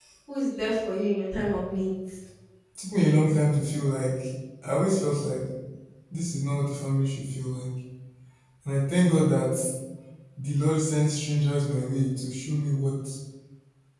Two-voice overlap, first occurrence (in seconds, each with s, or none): none